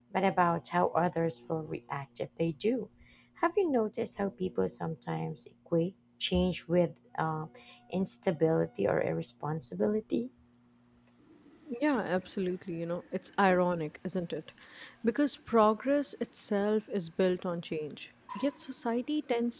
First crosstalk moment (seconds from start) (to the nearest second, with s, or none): none